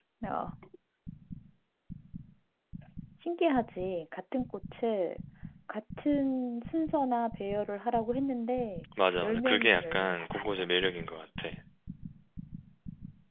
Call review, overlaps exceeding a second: present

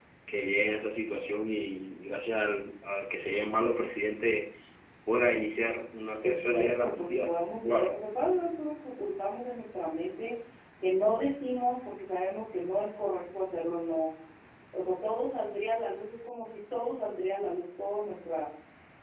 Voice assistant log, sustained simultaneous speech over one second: present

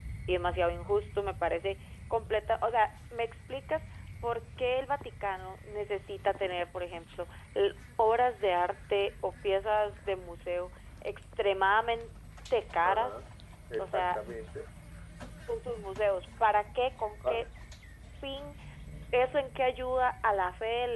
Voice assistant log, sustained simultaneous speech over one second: none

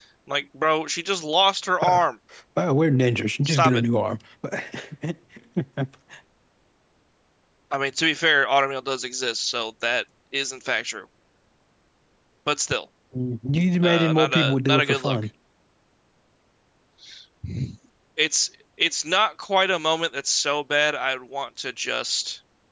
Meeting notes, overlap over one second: present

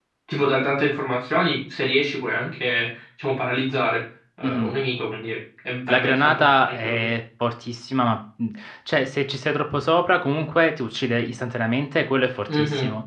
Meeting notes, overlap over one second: present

